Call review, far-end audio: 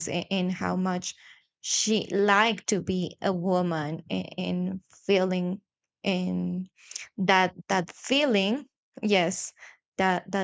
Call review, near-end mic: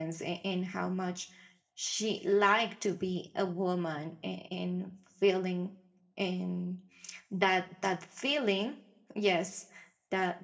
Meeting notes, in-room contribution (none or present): none